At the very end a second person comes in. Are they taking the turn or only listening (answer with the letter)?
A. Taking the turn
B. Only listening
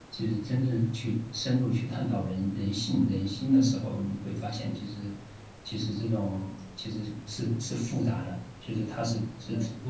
B